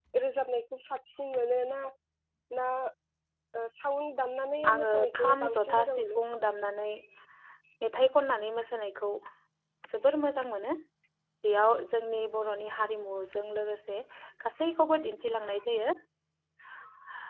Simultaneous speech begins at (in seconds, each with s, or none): 4.6 s